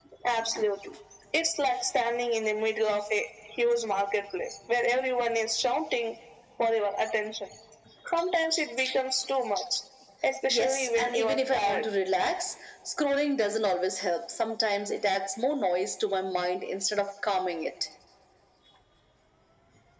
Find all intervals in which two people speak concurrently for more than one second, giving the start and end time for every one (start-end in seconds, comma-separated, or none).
10.5-11.9